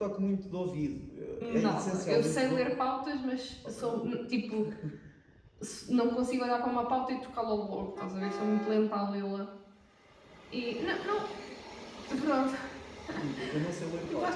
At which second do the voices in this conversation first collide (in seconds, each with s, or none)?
1.5 s